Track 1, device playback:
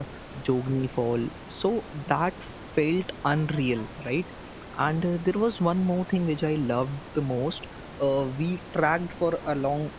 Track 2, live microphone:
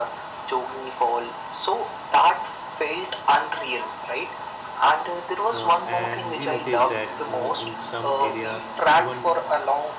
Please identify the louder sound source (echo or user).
echo